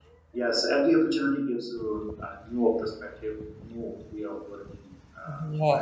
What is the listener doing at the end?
taking over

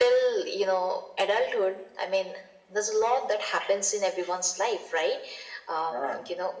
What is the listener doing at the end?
listening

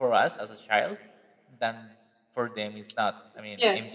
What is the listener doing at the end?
listening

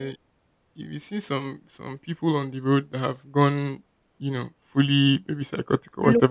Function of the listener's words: listening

